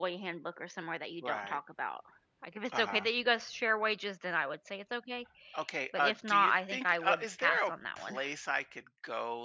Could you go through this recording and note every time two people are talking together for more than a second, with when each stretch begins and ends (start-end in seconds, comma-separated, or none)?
5.9-8.2